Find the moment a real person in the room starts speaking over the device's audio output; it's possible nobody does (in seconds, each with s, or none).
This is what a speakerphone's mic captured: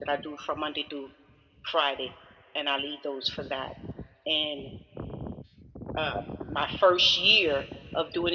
none